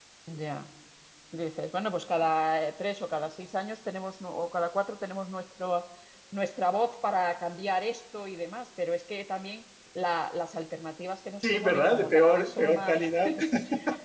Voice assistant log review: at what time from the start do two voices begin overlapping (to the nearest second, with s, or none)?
11 s